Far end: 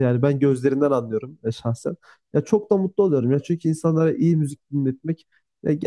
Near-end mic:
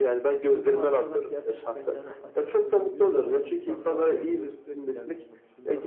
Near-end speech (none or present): present